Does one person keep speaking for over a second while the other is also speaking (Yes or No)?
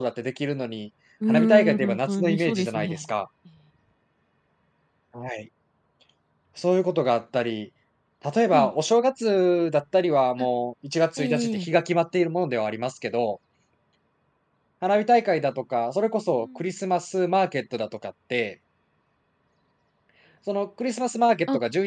Yes